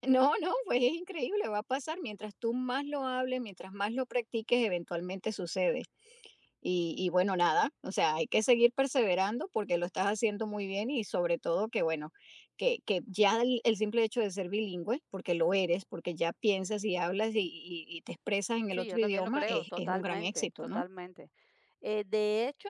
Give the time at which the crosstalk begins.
19 s

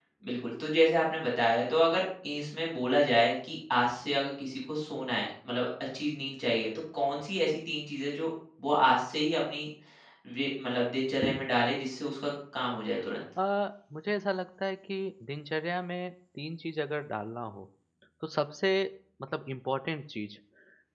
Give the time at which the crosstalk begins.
none

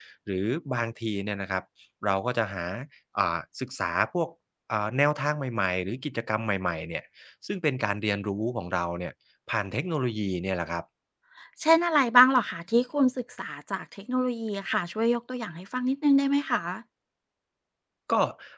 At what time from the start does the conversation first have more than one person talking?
none

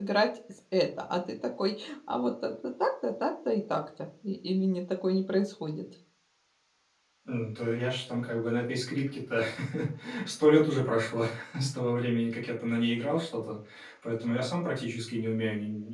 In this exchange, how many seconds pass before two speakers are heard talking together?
none

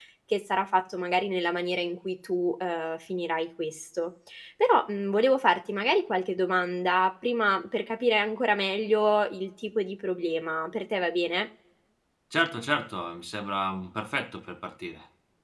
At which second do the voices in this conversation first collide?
none

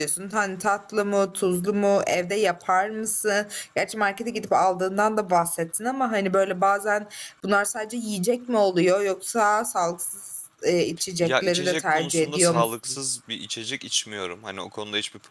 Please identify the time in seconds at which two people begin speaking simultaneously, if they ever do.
11 s

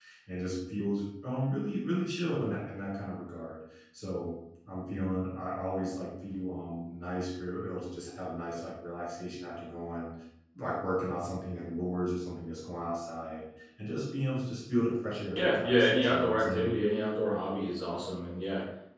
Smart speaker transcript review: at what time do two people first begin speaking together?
15 s

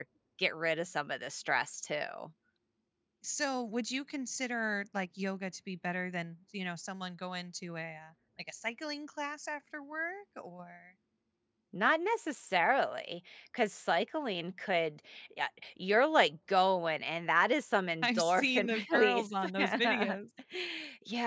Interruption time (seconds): 18 s

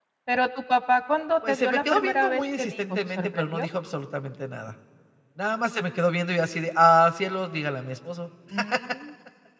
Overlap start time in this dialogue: 1 s

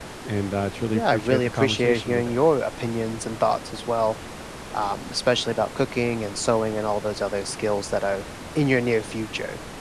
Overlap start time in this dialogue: 1 s

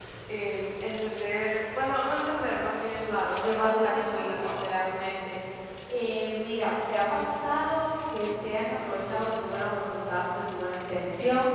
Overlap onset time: 3 s

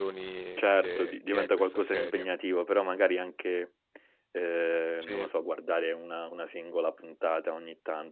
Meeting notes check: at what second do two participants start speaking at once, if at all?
1 s

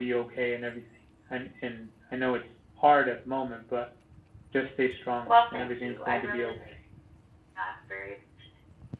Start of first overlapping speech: 5 s

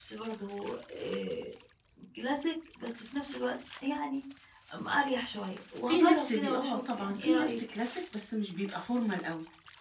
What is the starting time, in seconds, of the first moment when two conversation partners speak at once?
6 s

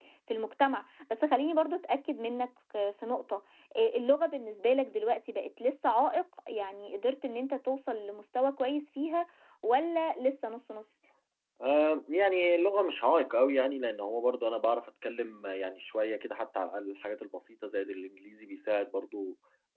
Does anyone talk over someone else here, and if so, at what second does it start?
none

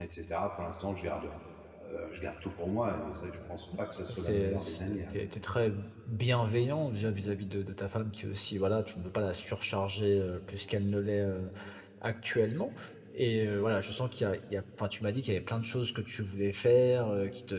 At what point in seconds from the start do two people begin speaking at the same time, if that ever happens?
4 s

